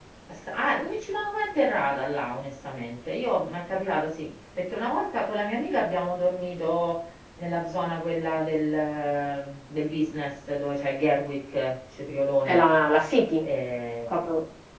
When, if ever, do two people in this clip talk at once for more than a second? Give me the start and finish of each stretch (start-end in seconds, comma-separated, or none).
none